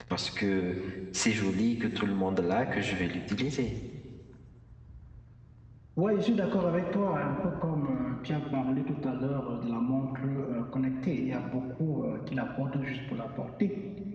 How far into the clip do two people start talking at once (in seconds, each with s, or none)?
none